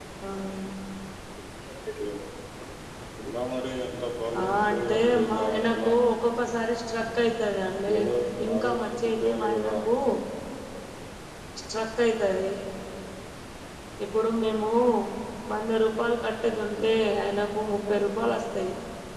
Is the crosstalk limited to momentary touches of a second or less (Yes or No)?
No